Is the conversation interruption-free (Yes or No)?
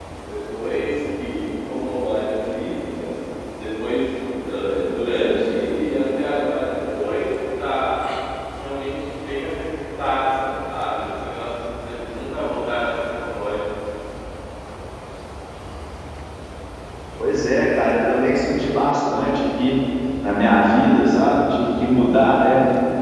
Yes